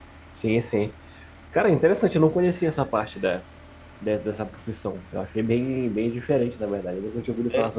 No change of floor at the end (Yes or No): No